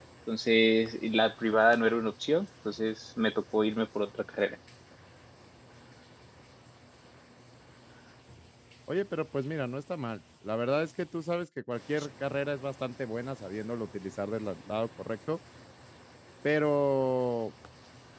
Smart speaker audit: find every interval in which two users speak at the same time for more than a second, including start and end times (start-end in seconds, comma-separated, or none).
none